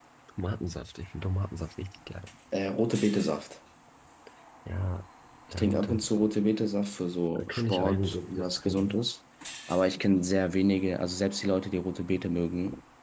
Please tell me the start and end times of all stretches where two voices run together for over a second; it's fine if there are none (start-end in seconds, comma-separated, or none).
7.3-8.9